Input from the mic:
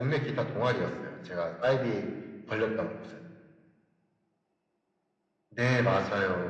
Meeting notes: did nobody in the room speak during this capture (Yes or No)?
Yes